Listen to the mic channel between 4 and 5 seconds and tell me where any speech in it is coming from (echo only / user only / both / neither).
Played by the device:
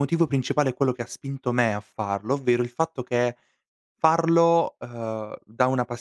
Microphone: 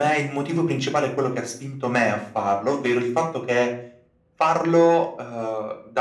echo only